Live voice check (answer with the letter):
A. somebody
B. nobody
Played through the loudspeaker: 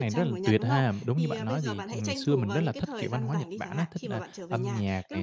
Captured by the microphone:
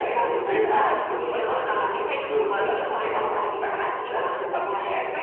B